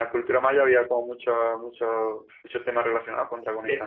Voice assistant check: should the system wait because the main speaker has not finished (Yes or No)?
No